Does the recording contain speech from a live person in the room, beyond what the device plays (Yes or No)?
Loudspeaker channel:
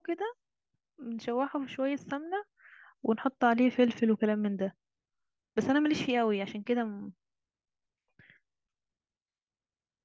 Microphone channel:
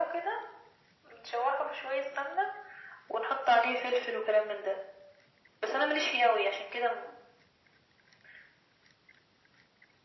No